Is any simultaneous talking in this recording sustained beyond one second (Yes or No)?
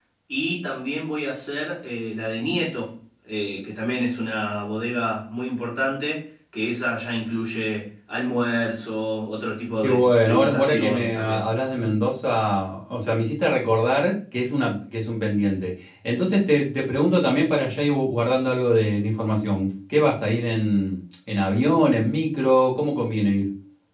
Yes